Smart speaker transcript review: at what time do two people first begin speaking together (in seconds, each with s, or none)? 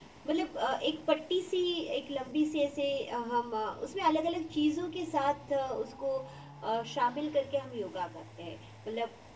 none